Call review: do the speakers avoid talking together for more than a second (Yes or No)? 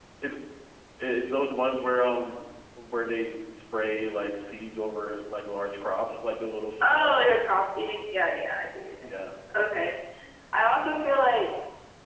Yes